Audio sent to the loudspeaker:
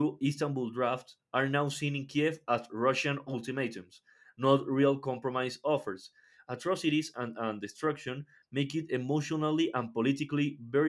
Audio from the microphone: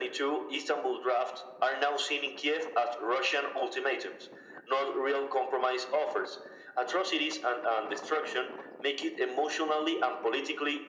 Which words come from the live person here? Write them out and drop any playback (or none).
none